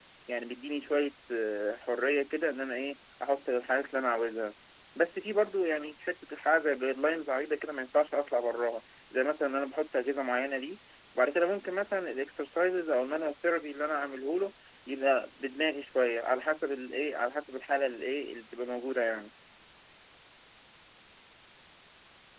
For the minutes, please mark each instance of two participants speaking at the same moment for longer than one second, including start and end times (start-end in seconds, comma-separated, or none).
none